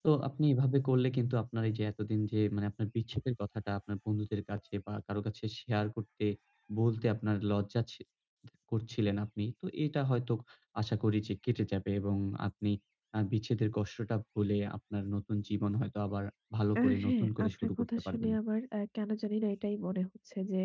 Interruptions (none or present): present